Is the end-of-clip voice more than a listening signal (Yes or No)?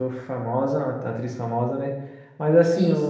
No